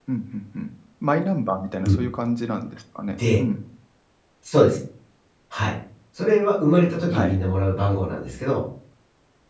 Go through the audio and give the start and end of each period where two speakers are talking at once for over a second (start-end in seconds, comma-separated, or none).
none